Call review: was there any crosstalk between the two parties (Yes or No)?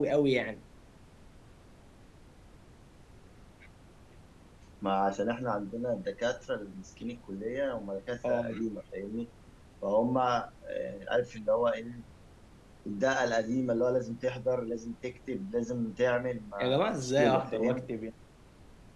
Yes